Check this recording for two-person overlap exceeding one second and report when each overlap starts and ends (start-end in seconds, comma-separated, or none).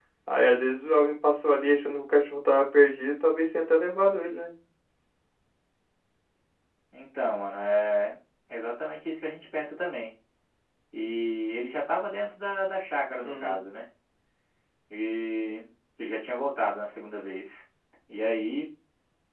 none